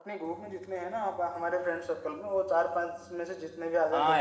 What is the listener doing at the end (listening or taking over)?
taking over